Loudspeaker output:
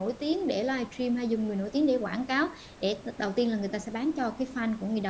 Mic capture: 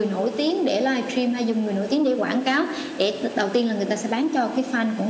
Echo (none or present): present